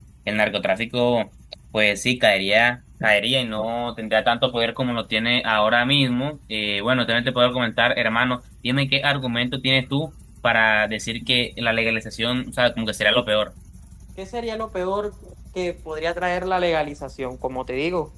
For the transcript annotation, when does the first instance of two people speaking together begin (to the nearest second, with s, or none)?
none